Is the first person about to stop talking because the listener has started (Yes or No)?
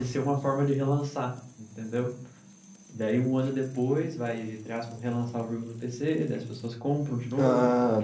Yes